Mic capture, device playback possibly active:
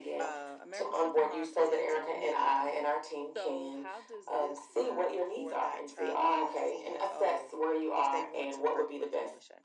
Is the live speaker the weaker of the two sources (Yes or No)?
Yes